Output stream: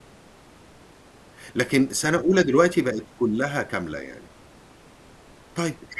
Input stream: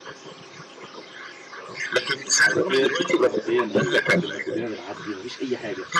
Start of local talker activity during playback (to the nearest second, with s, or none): 2 s